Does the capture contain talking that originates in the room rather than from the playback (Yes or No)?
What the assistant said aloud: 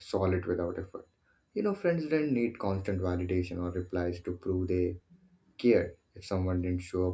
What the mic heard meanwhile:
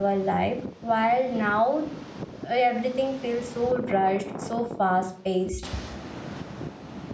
Yes